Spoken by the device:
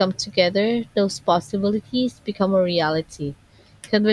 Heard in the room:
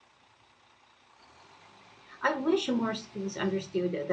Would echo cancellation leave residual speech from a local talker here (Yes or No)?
Yes